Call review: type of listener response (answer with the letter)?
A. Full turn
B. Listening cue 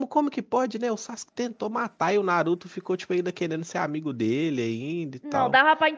A